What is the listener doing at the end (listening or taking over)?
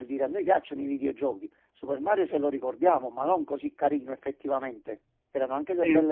listening